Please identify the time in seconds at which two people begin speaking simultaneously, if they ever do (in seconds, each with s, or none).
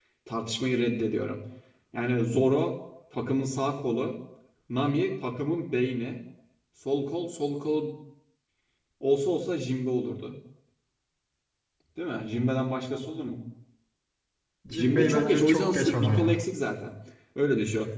14.7 s